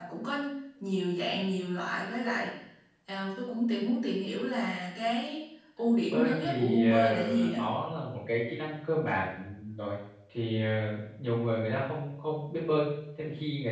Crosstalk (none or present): present